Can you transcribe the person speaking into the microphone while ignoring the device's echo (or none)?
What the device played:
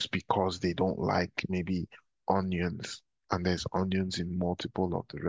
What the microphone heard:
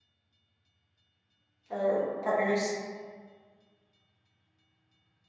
or partners?